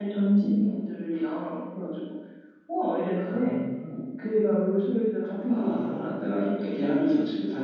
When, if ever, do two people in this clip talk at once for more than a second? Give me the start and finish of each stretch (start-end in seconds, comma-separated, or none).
5.5-7.0